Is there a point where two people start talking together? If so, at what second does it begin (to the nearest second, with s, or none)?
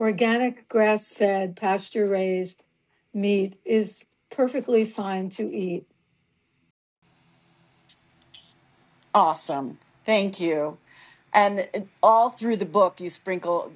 none